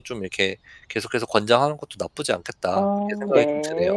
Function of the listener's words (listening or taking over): taking over